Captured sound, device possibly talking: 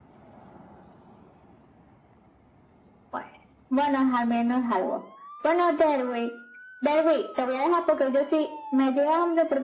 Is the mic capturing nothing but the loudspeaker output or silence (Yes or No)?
Yes